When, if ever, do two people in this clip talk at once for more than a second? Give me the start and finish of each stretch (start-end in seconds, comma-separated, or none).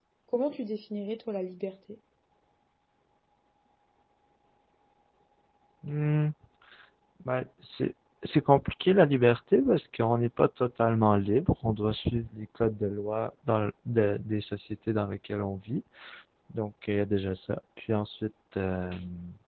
none